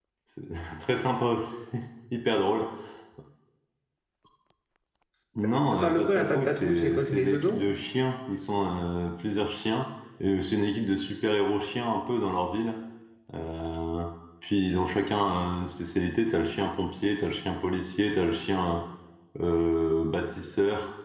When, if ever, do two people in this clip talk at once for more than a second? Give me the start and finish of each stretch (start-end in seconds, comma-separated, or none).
5.7-7.6